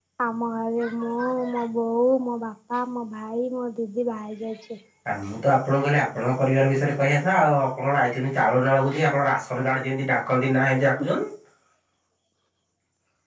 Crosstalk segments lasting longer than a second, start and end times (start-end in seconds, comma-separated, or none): none